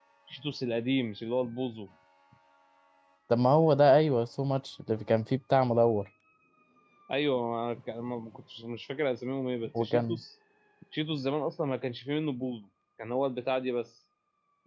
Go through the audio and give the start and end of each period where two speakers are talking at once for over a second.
none

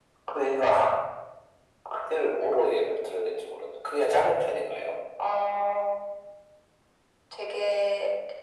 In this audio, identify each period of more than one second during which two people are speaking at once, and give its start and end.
none

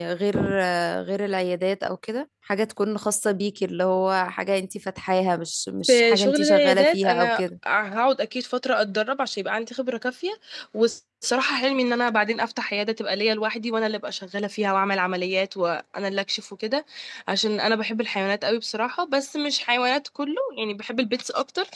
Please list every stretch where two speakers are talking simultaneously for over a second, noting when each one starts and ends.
5.9-7.4

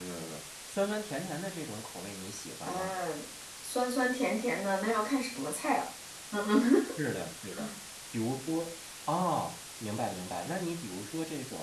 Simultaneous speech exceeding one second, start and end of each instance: none

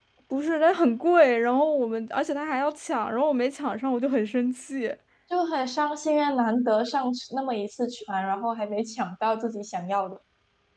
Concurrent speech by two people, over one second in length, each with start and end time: none

